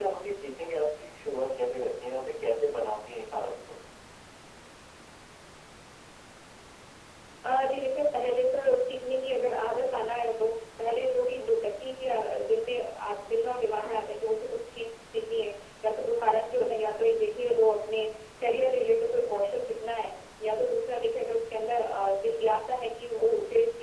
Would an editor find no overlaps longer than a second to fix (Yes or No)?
Yes